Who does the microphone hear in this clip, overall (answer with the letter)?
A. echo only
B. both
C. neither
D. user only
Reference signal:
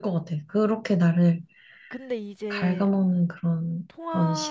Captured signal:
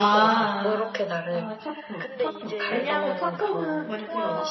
B